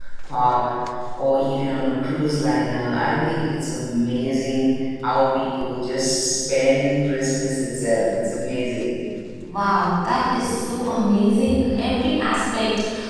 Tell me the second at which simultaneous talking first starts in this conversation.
none

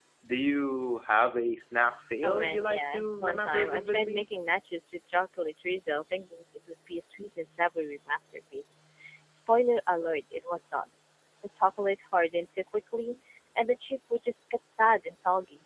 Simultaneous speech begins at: 2.2 s

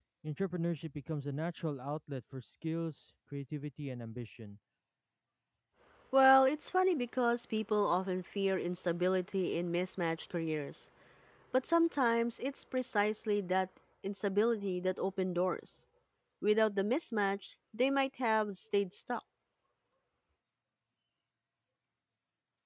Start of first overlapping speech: none

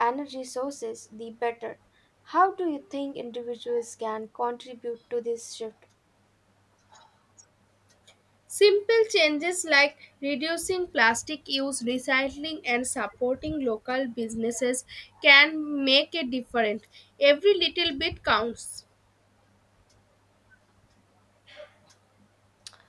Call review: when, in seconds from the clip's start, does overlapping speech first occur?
none

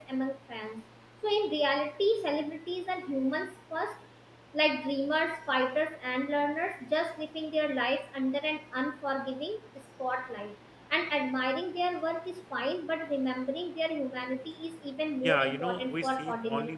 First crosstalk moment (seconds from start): 15.2 s

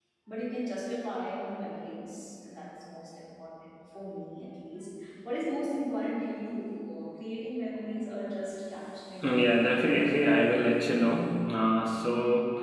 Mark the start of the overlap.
9.2 s

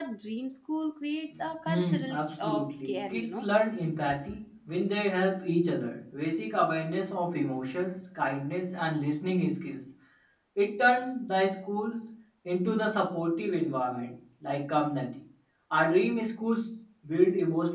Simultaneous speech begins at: 1.7 s

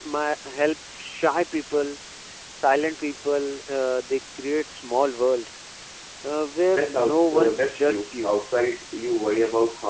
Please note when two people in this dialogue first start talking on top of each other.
6.7 s

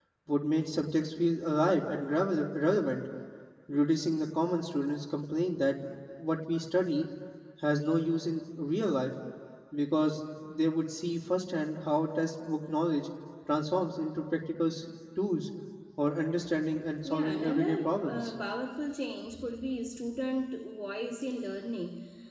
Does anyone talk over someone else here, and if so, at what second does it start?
17.0 s

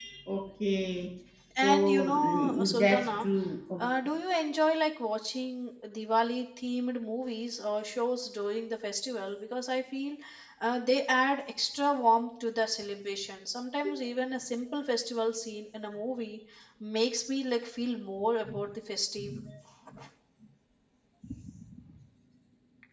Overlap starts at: 1.6 s

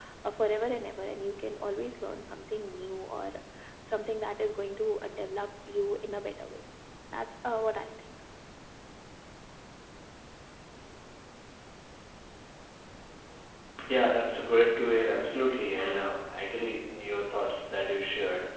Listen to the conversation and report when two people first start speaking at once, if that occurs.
none

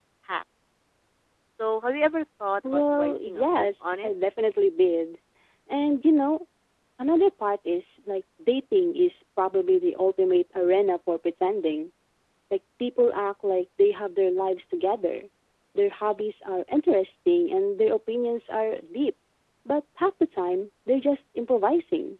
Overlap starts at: 2.6 s

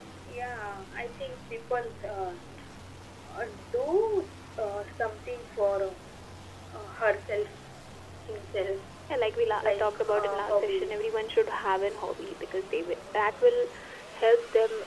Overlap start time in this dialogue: 9.6 s

